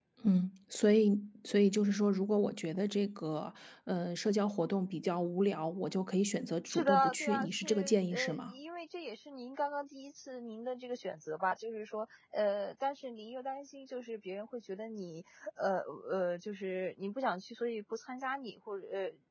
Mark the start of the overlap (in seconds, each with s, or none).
6.7 s